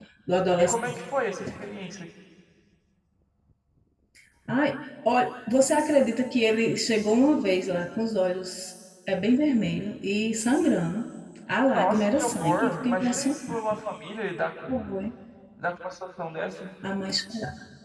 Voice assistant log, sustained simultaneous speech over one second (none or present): present